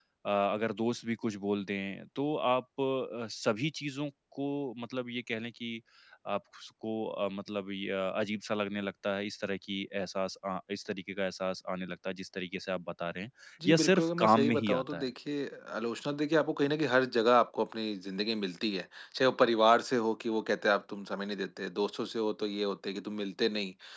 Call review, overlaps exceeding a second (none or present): present